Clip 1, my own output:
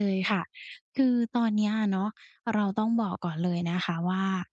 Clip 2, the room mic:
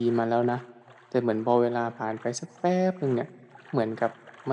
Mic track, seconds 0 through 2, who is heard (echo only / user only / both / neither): user only